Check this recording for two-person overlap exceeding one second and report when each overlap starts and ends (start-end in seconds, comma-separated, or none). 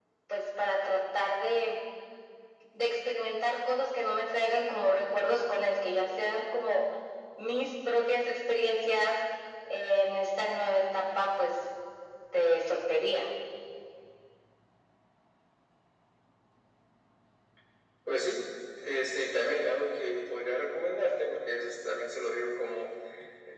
none